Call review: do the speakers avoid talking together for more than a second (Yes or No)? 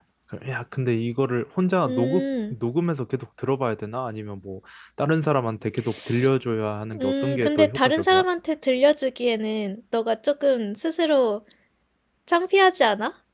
No